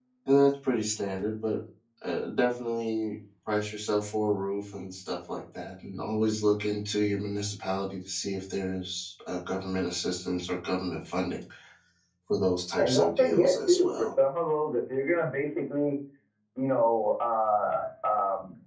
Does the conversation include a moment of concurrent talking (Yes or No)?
Yes